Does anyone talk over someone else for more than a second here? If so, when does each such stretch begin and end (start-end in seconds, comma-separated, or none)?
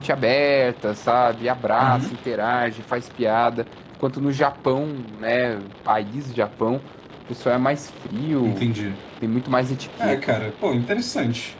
none